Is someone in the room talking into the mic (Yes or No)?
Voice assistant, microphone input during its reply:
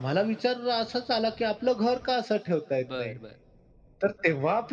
Yes